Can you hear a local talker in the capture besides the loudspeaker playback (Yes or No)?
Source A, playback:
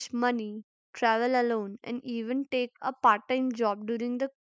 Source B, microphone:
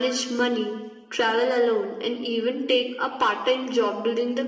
No